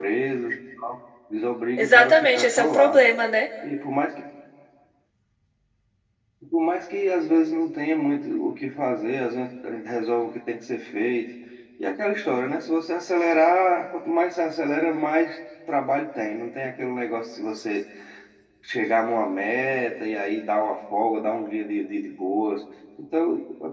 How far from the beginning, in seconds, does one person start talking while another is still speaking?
2 s

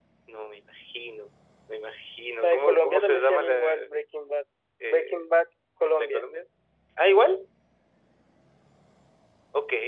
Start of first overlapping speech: 2 s

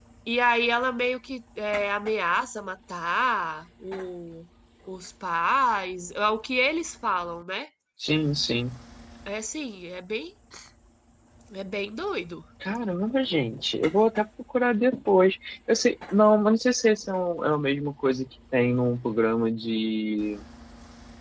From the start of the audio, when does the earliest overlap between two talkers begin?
none

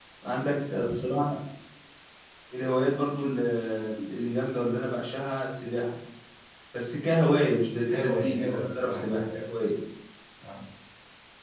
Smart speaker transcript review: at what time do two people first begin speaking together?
8 s

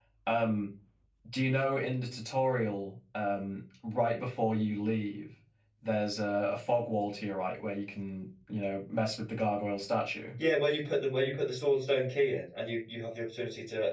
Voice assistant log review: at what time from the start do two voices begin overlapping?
none

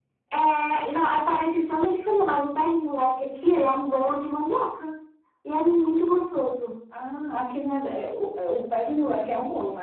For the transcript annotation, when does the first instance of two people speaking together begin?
none

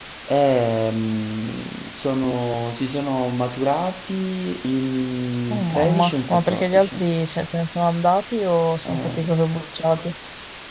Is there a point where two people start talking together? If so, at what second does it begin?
6 s

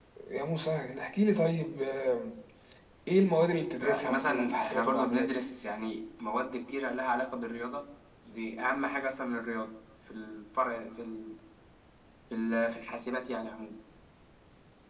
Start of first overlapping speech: 4 s

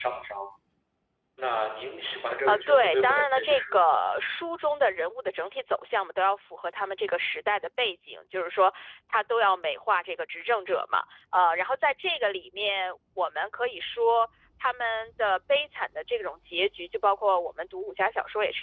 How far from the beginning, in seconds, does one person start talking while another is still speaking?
2 s

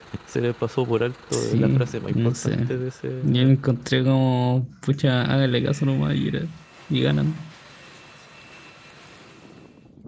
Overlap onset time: 1 s

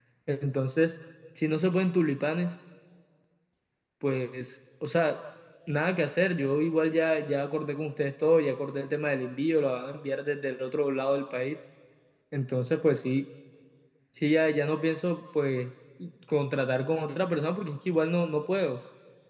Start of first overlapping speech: none

